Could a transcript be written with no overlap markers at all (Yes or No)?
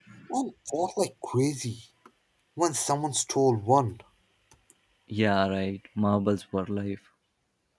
Yes